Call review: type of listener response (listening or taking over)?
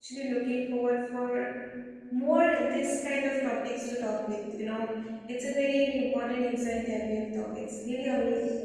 taking over